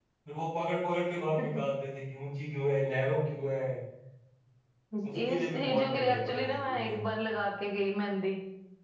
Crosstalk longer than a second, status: present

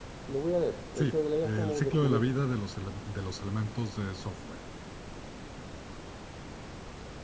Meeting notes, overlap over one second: present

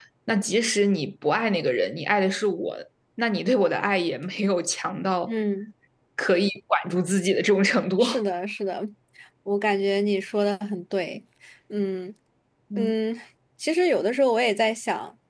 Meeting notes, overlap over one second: none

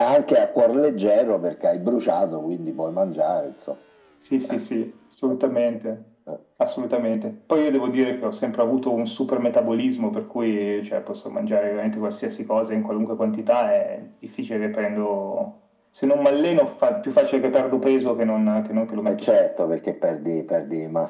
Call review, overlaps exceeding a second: none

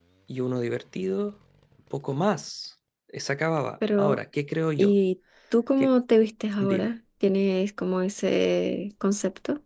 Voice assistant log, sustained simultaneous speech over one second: none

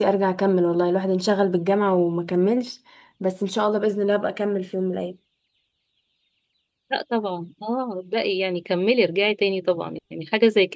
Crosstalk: none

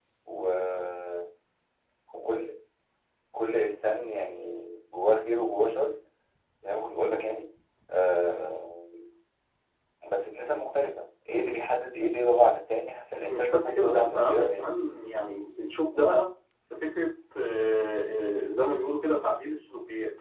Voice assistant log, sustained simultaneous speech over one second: present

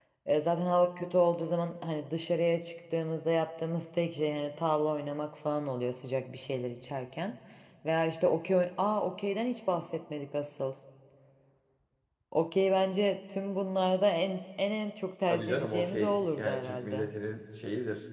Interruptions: present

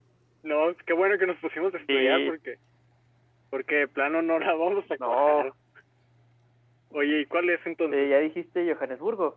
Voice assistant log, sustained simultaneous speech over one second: none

